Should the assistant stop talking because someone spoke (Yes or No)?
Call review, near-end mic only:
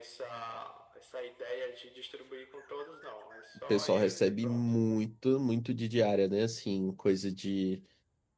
Yes